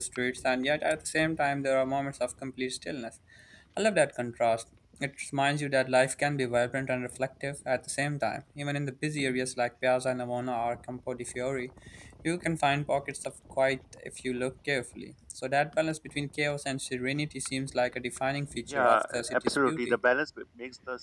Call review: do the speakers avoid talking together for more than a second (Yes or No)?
No